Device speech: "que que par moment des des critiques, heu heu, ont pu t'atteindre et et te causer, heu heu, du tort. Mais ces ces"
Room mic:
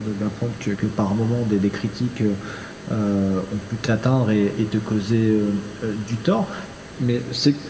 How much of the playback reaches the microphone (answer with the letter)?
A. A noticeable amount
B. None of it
A